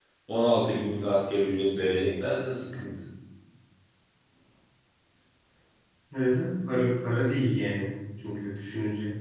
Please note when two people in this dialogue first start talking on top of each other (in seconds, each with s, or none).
none